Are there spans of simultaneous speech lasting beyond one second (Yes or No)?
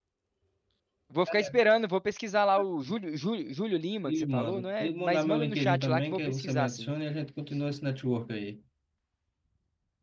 Yes